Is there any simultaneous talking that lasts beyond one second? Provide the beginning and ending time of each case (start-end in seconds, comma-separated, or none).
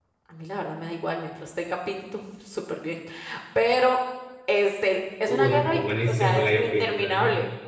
5.3-7.2